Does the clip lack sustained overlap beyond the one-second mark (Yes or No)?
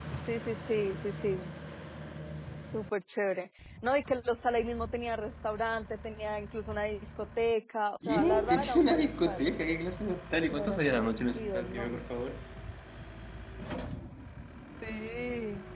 No